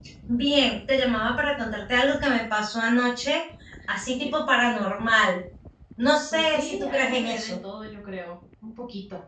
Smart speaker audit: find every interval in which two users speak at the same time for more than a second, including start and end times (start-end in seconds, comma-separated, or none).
6.3-7.6